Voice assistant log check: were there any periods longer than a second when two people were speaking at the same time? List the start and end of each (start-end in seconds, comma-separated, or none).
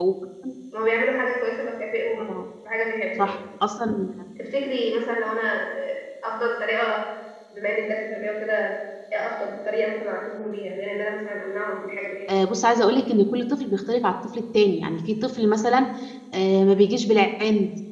none